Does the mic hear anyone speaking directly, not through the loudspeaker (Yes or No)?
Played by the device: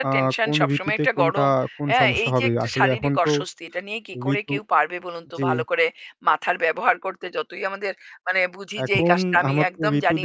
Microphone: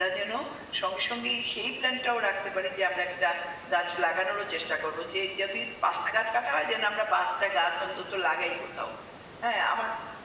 Yes